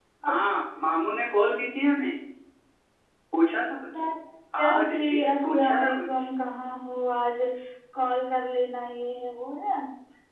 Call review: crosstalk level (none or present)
present